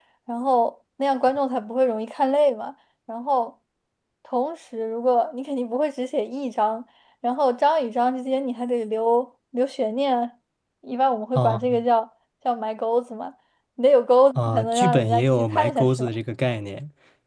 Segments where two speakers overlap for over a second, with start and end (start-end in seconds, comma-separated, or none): 14.3-16.1